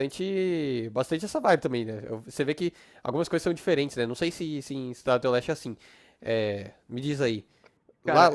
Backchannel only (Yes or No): Yes